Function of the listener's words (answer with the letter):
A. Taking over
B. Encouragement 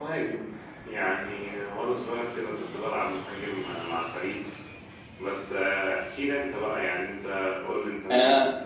A